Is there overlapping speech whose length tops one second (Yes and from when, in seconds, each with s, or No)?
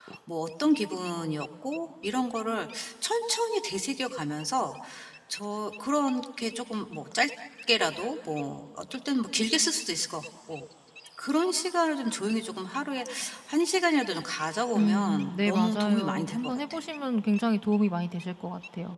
Yes, from 14.8 s